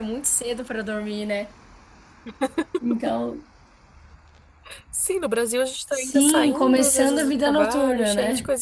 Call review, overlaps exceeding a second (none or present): present